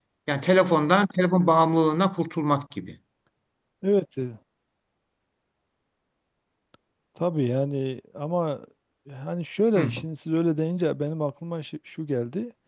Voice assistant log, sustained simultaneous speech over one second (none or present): none